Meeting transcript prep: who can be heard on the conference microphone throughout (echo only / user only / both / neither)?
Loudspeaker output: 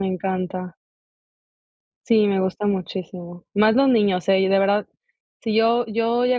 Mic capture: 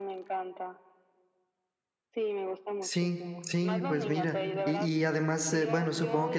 both